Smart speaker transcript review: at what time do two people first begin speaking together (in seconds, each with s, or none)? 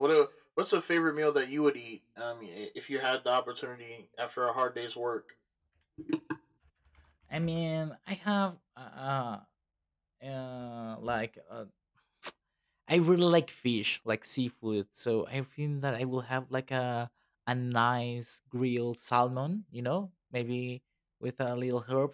none